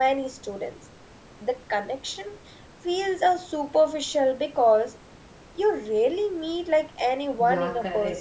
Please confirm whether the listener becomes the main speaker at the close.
Yes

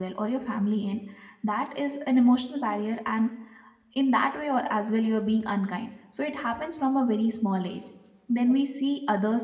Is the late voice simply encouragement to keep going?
Yes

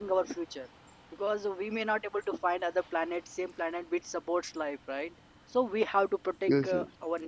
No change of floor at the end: Yes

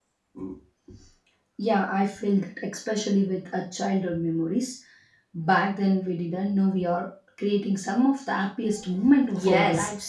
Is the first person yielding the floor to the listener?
Yes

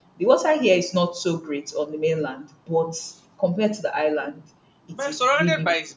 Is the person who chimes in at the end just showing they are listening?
No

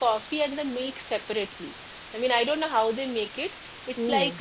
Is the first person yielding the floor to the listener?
No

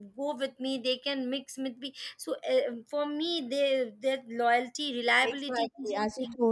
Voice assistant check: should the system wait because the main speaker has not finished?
No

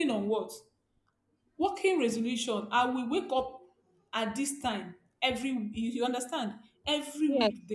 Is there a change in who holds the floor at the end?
No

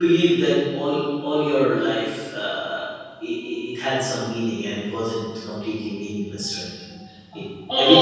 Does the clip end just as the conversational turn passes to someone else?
Yes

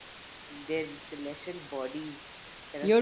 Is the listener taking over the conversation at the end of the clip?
Yes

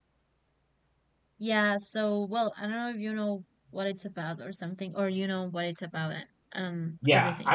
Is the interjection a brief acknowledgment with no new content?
No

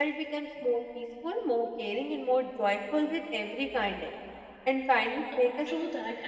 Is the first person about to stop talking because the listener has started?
Yes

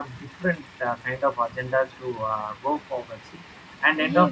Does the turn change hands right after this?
Yes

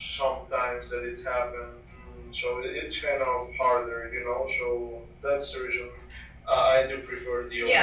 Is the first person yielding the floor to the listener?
Yes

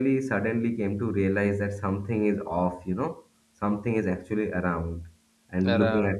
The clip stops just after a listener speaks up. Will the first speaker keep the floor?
Yes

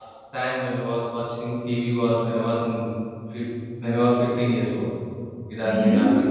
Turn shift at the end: No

